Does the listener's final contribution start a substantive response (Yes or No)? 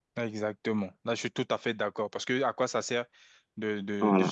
No